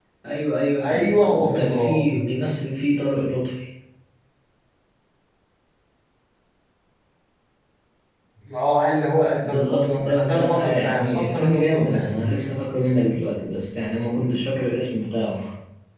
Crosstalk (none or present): present